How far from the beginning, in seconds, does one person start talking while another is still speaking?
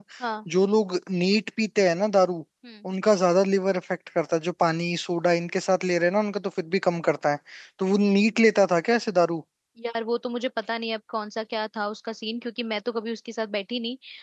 none

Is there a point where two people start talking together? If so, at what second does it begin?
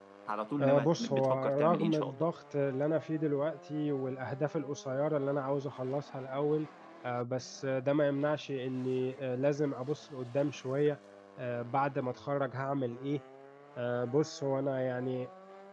0.6 s

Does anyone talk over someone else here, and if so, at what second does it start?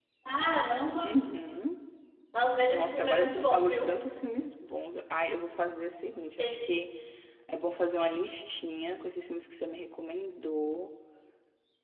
2.7 s

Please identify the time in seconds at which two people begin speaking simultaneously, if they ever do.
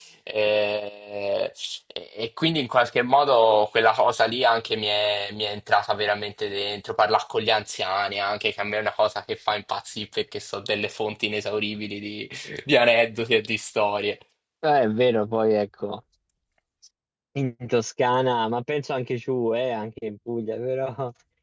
none

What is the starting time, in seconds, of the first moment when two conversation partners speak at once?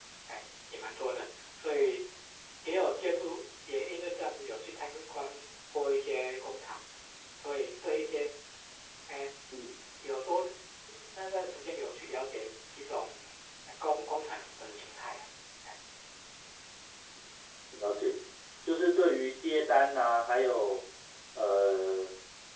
none

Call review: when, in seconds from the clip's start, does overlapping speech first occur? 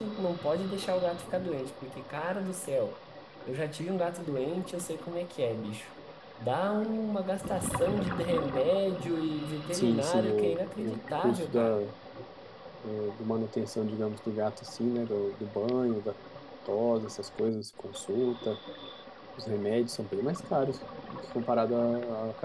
9.7 s

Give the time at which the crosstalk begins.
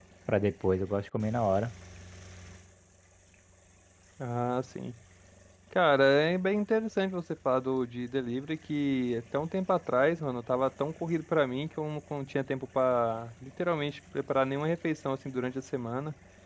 none

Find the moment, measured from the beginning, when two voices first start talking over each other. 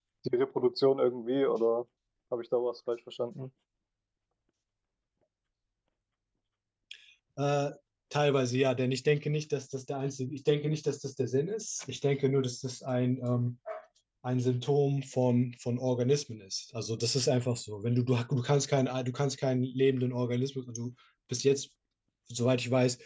none

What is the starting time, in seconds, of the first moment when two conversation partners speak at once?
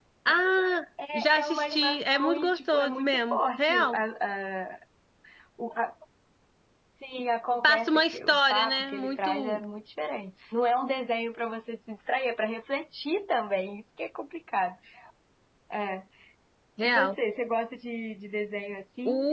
1.1 s

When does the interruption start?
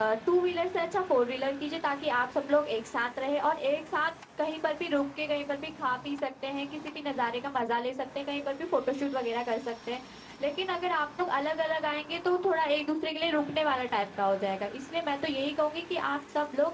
none

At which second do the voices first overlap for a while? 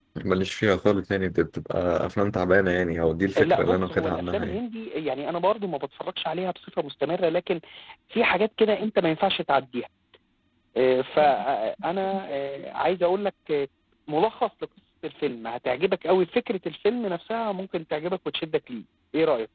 3.4 s

